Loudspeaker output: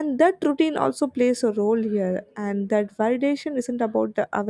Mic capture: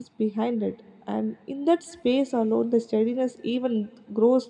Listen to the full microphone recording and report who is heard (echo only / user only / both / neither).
user only